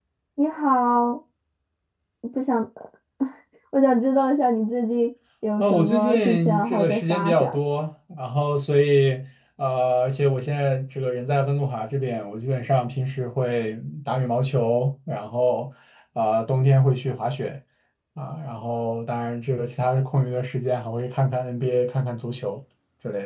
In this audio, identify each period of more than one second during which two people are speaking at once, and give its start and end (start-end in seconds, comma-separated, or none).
5.6-7.6